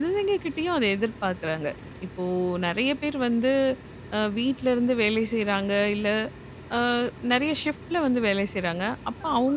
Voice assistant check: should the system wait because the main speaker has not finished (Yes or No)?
Yes